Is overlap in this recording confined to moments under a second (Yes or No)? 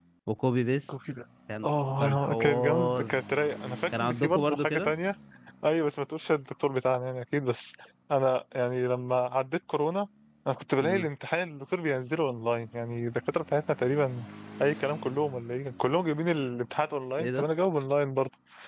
No